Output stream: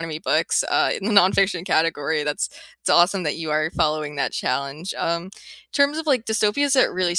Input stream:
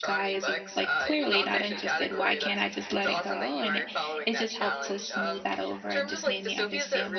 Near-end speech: present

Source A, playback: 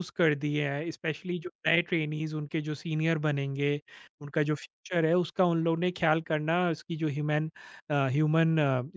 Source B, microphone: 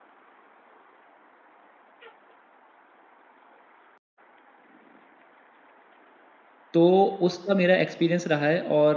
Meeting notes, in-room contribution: present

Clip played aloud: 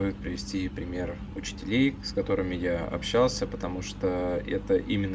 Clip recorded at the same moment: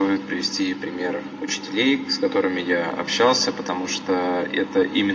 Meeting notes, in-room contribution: none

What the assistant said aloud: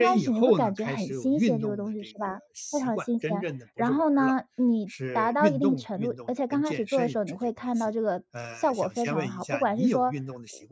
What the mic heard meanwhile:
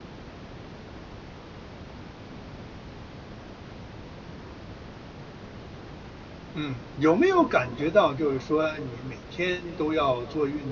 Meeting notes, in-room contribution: present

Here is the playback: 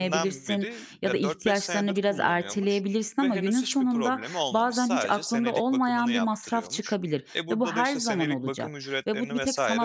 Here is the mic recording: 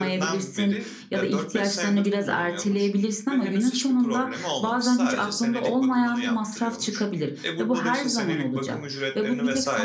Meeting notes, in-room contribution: none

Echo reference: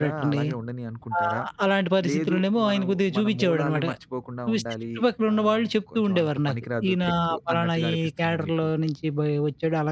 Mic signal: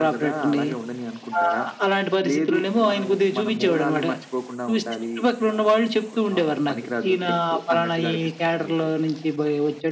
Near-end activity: none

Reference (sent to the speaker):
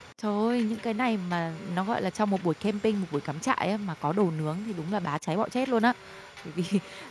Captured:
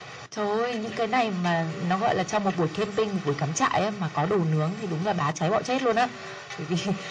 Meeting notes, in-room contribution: none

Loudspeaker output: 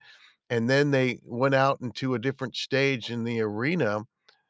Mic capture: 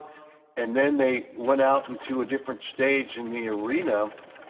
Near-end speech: none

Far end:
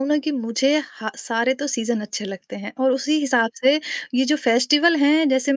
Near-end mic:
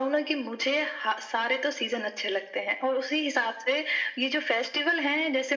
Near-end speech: none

